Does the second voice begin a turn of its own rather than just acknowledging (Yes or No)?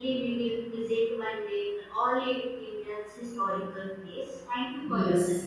Yes